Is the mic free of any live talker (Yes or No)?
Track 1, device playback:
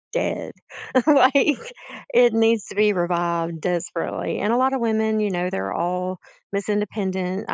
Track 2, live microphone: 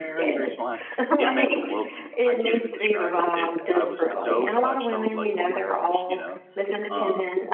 No